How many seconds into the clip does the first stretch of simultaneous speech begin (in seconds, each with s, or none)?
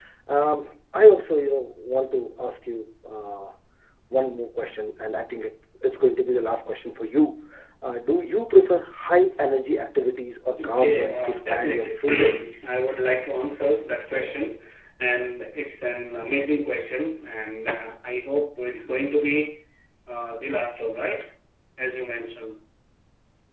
10.6 s